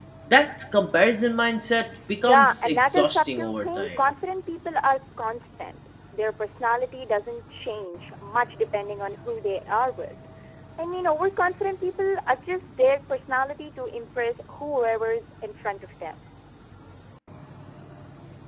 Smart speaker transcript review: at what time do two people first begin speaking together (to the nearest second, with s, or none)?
2 s